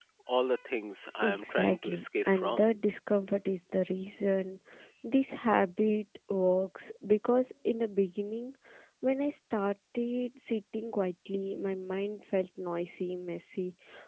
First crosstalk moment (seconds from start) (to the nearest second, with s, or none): 1 s